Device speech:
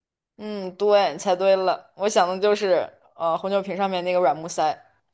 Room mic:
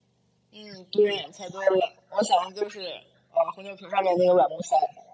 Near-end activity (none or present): none